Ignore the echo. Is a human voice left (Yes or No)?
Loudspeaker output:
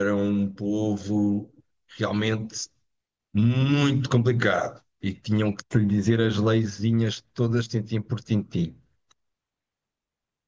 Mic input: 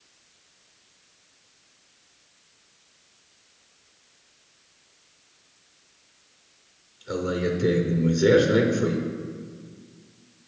Yes